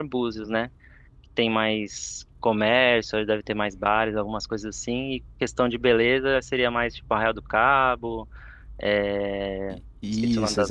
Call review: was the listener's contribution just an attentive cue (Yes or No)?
No